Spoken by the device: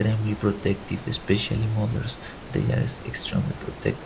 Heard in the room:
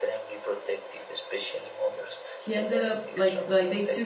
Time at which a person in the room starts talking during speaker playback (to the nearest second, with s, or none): 2 s